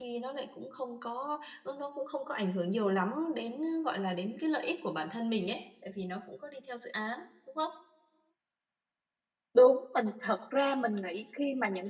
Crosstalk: none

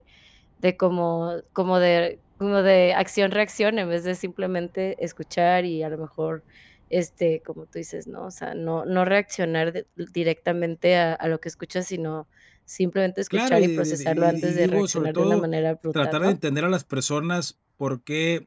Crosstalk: present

